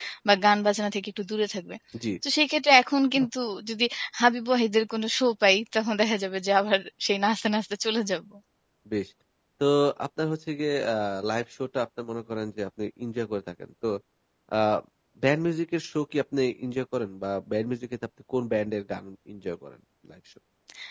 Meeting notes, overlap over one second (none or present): none